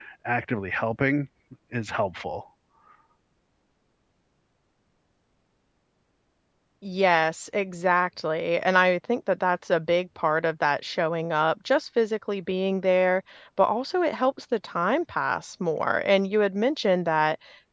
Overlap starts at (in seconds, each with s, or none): none